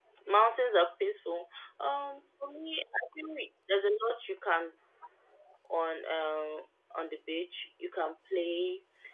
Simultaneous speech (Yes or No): No